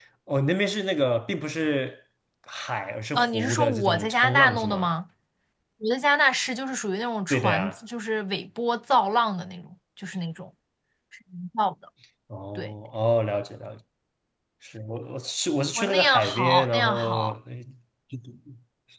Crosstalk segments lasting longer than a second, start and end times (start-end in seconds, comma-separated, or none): 3.2-4.9, 15.8-17.3